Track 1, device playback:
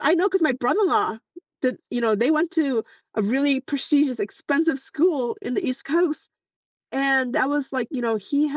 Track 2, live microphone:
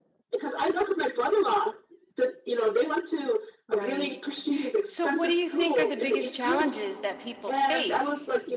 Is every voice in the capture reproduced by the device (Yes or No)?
No